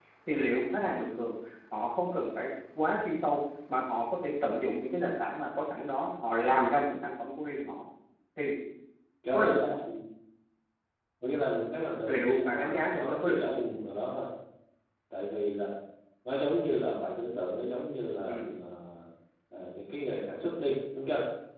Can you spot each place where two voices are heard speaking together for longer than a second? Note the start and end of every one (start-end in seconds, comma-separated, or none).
12.1-13.5